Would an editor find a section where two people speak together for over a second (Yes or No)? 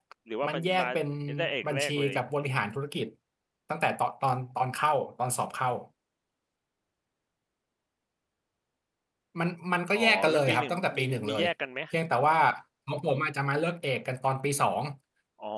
Yes